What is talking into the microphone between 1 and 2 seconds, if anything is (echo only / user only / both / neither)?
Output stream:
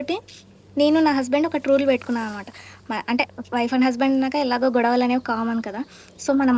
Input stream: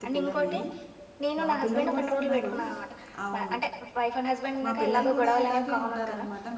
both